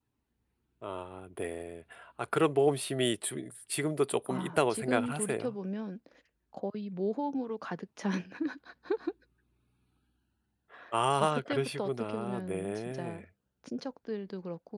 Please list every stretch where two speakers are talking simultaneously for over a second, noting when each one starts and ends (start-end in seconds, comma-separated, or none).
4.3-5.5, 11.2-13.2